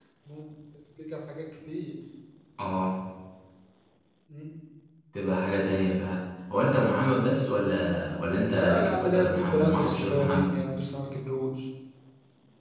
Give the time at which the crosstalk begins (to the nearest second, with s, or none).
9 s